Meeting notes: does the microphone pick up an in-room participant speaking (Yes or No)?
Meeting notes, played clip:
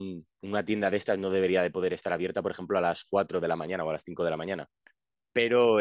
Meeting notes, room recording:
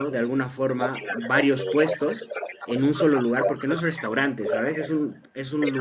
Yes